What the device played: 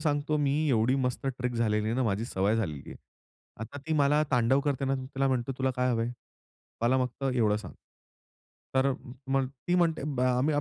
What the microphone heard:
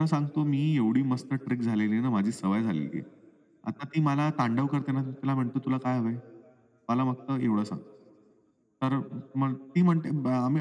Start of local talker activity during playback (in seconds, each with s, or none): none